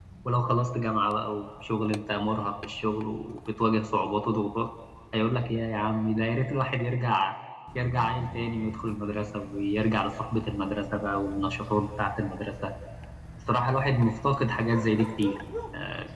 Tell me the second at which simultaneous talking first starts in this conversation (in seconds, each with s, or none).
none